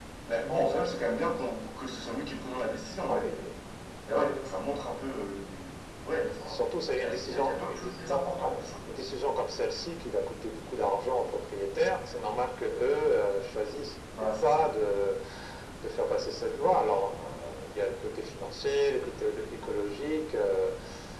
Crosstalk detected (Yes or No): Yes